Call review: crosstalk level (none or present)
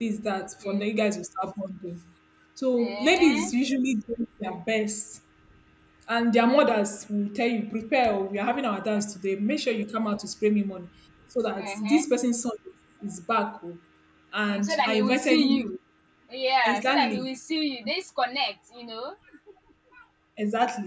present